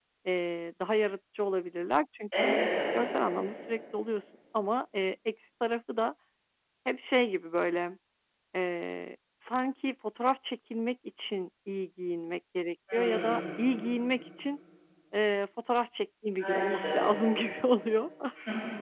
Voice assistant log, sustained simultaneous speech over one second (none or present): none